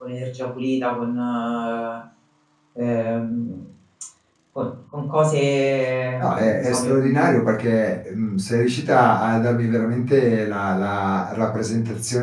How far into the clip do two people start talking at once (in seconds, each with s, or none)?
6.2 s